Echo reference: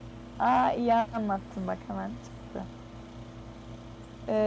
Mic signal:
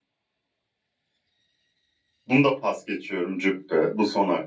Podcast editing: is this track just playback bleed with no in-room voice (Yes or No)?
No